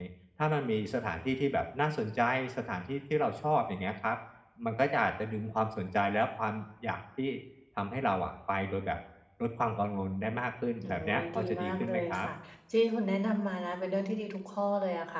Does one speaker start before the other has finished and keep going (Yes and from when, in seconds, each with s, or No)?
Yes, from 10.8 s